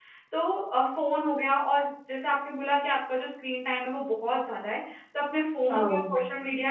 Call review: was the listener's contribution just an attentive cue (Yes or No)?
Yes